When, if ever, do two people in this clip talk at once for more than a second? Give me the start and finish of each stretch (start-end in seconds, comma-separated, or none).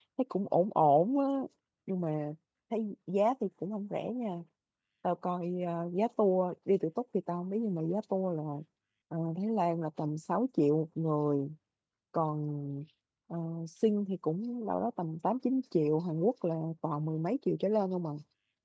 none